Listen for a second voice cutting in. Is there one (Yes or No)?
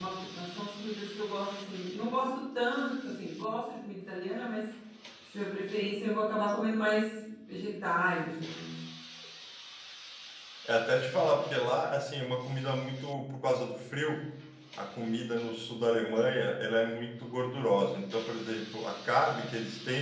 No